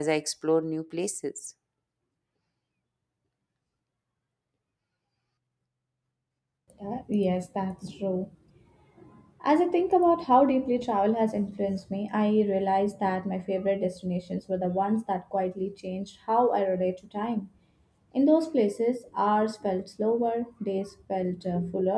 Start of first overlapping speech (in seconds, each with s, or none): none